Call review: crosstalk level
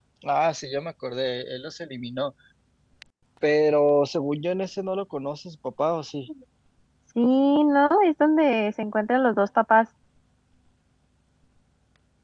none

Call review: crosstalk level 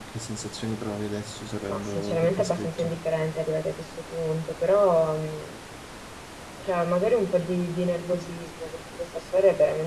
present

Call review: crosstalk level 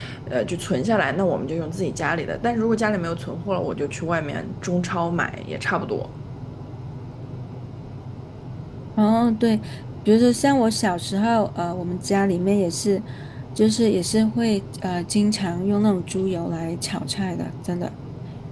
none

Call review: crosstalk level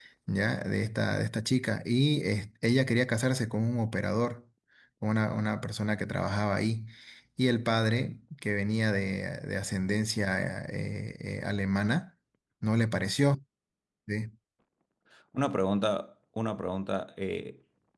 none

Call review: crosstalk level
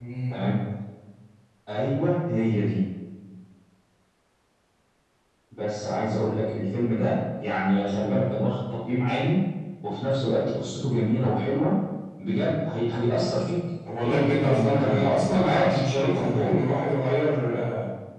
present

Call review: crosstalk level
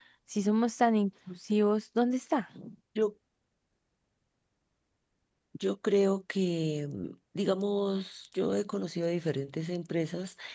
none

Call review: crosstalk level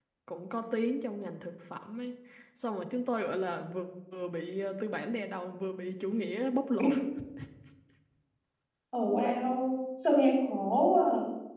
none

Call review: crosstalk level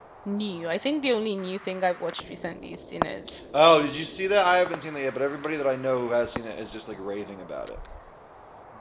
none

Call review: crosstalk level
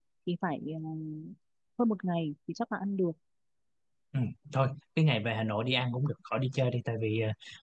none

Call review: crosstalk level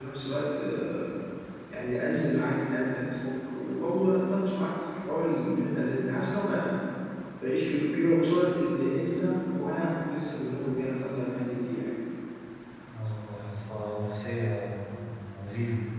none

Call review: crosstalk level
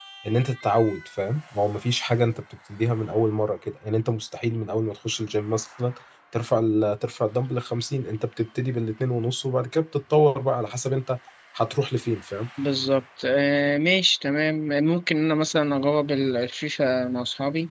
none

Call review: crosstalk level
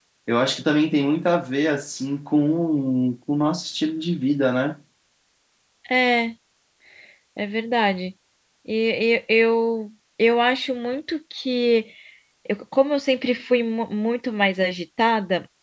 none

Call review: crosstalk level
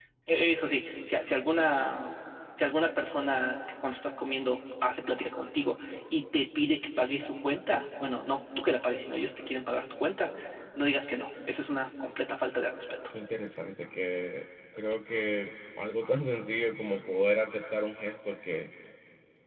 none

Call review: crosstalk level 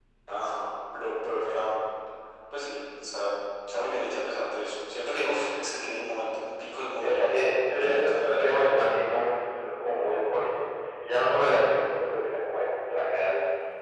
present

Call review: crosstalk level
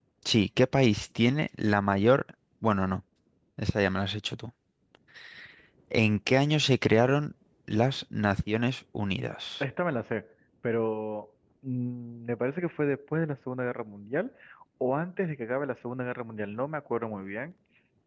none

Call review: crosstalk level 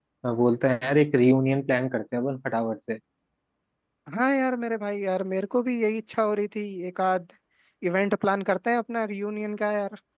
none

